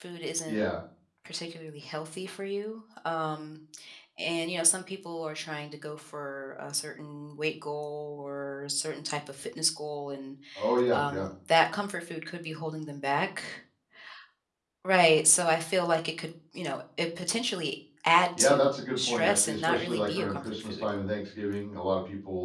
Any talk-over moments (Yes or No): Yes